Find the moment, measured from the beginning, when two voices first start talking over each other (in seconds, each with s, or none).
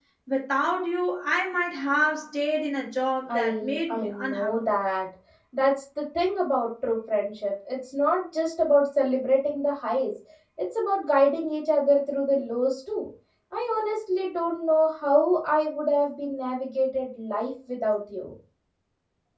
3.3 s